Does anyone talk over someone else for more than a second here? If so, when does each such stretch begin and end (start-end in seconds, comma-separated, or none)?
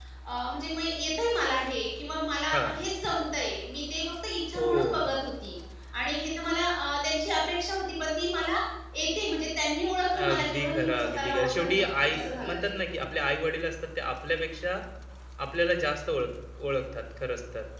10.2-12.7